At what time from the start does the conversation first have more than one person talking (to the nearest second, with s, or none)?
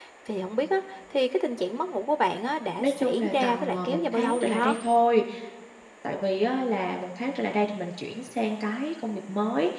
3 s